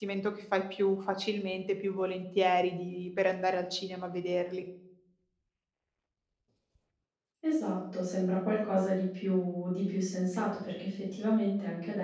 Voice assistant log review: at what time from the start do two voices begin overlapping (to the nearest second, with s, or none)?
none